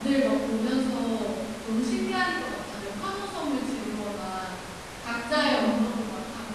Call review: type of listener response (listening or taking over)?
listening